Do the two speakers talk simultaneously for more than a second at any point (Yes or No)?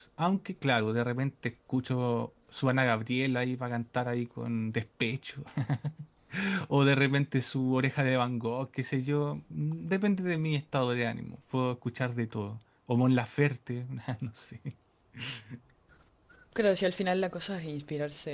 No